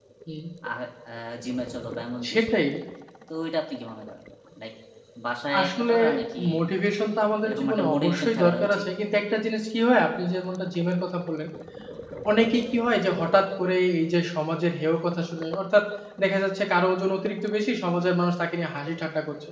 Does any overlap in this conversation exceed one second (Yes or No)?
Yes